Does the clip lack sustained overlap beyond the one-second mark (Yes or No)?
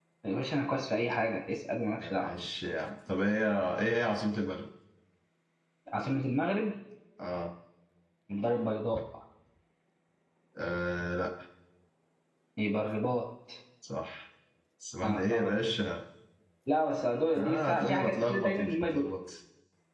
No